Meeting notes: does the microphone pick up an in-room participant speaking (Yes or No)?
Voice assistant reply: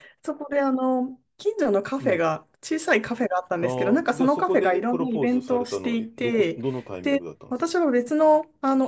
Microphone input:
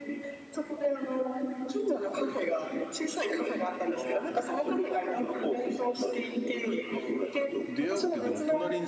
Yes